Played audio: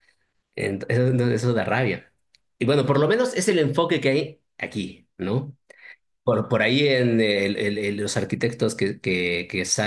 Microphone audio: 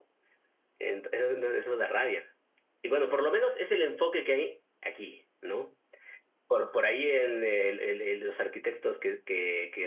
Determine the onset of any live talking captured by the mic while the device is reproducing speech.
none

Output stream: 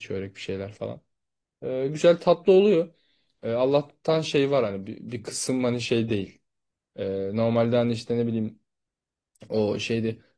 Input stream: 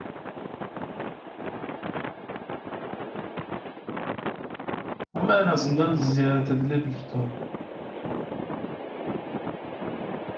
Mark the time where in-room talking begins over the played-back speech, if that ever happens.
5 s

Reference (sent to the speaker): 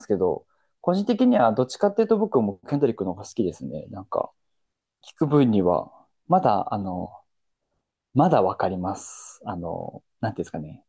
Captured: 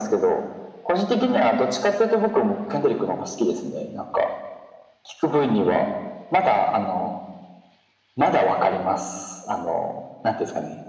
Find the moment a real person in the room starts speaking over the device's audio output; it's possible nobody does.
none

